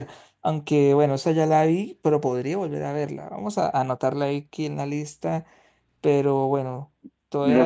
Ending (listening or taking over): taking over